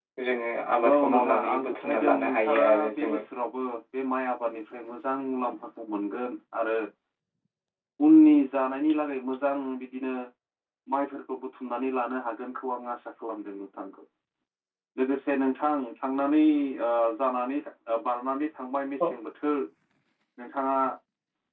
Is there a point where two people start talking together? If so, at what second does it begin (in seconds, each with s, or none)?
0.7 s